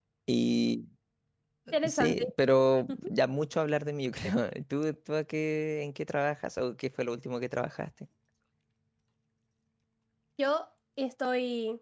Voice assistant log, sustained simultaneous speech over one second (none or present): none